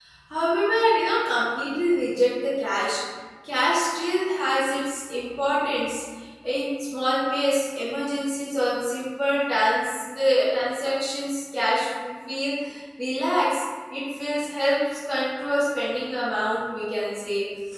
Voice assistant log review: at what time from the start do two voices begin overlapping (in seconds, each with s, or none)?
none